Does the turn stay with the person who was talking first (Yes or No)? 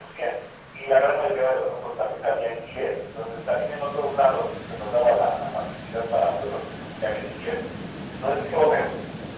Yes